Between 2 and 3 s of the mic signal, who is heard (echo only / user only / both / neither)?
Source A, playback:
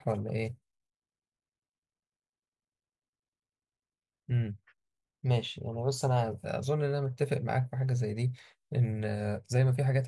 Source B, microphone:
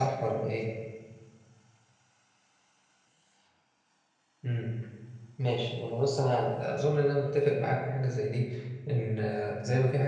neither